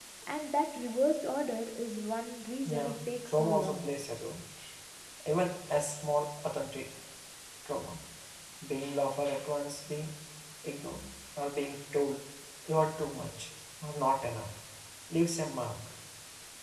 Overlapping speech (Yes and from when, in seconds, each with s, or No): Yes, from 2.6 s